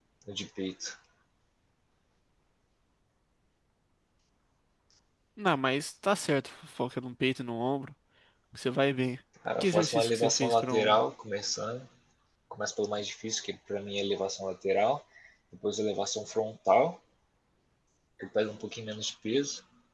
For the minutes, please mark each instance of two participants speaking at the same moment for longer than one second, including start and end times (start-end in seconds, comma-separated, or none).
9.6-11.0